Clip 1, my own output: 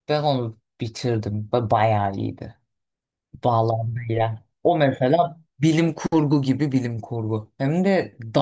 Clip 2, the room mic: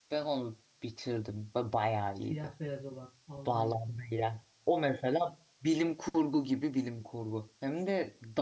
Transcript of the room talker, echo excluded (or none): Siyah beyaz olan Alman yapımı.